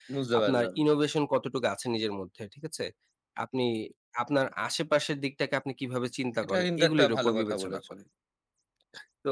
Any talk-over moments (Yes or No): Yes